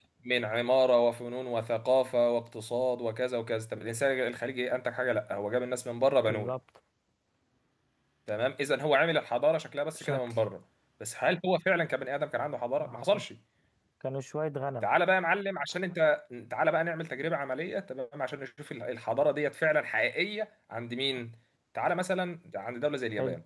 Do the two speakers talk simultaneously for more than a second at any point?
No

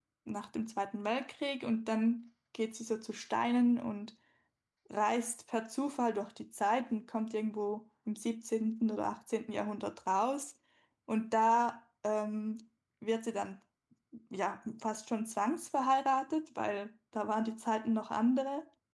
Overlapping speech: No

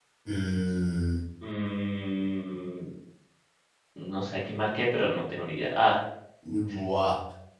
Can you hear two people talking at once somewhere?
No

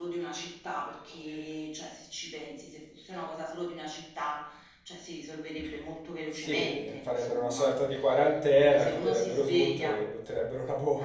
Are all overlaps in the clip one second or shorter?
No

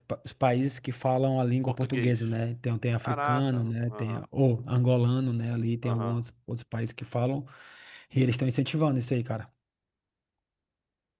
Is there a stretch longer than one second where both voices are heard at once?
Yes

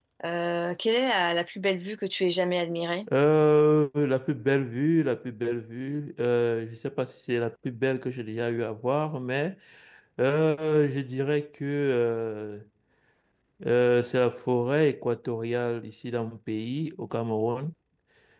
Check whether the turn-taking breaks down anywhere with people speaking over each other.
No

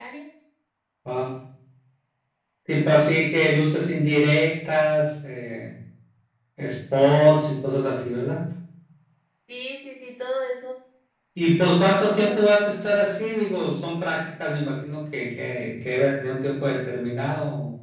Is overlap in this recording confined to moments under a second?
Yes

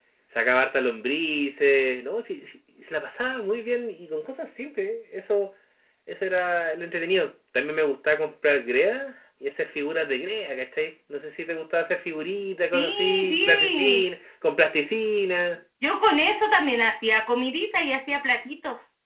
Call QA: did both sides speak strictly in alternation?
No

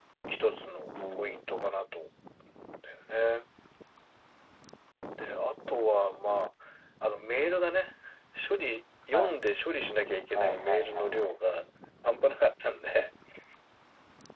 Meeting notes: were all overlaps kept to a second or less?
No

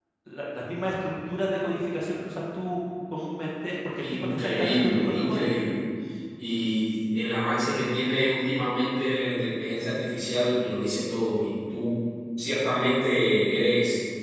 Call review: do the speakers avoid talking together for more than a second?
No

